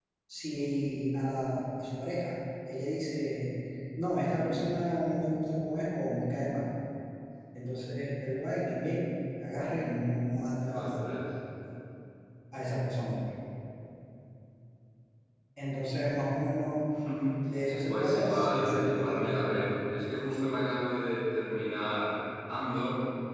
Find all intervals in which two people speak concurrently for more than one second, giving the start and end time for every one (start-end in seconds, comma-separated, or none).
17.9-19.7